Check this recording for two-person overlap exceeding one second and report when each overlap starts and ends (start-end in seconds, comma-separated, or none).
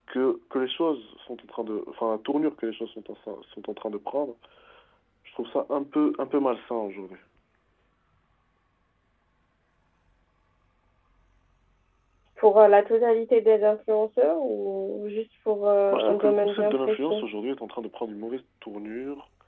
15.9-17.2